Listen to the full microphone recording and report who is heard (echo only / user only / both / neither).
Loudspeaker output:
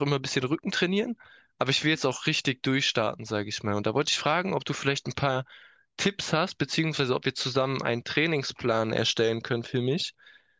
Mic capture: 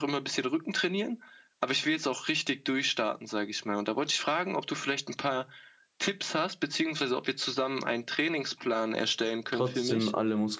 both